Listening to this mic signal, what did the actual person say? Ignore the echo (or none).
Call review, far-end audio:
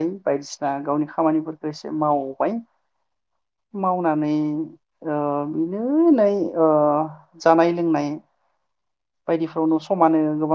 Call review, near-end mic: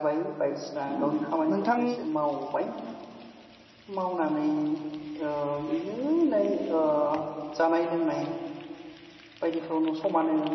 उम नोंथां